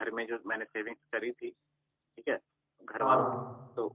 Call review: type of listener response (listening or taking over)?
listening